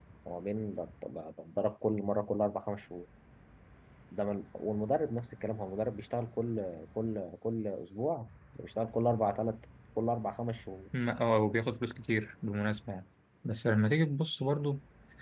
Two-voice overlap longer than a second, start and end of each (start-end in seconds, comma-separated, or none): none